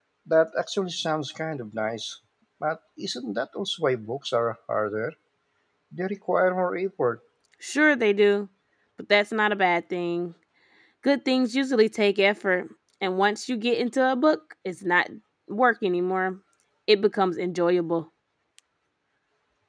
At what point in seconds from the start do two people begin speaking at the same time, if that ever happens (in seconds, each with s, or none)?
none